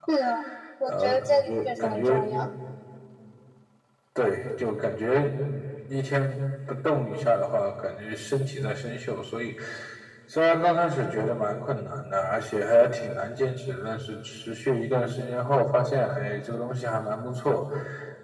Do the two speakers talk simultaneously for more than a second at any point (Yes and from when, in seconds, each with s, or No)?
Yes, from 0.9 s